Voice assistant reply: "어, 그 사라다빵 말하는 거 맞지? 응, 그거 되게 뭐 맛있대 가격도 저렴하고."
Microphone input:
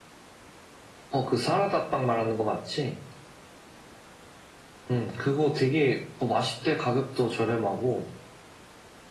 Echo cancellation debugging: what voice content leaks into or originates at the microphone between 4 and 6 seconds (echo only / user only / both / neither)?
echo only